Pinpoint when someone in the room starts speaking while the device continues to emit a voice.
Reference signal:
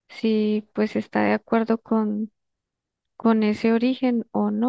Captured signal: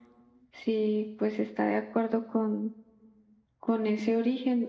none

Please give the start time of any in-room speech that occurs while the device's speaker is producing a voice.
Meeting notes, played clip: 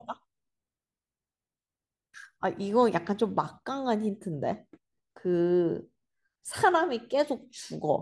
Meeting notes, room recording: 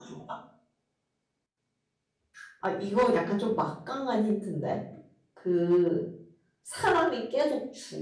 none

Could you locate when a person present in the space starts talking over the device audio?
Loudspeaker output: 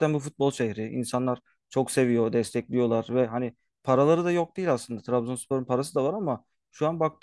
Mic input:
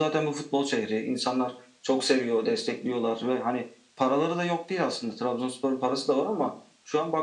none

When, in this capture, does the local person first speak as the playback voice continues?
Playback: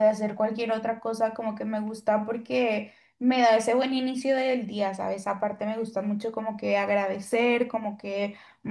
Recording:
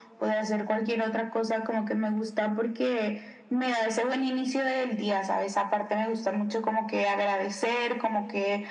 none

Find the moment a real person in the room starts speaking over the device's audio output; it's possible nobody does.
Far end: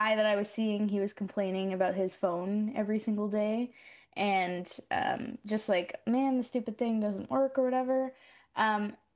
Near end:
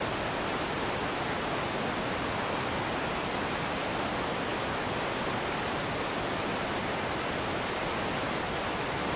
none

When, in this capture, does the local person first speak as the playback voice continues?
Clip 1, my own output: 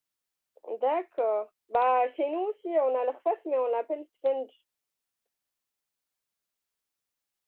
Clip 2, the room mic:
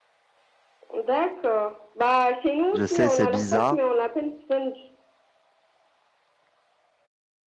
2.7 s

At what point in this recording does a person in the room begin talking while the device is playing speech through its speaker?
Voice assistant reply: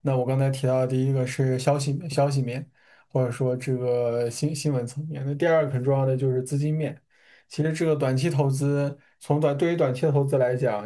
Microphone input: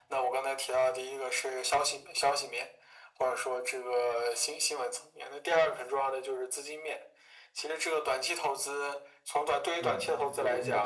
9.8 s

